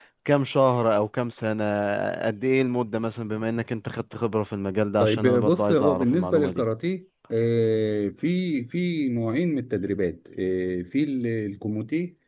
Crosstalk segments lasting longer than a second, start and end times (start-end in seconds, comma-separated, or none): 5.0-6.6